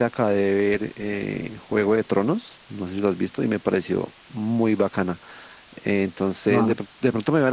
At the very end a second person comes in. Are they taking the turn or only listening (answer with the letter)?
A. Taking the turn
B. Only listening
B